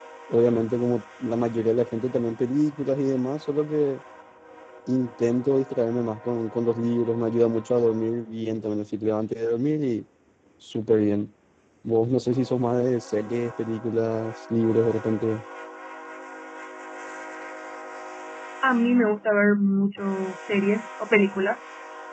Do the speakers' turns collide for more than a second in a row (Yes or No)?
No